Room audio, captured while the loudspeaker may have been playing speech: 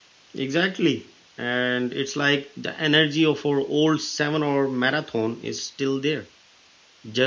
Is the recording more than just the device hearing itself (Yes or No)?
Yes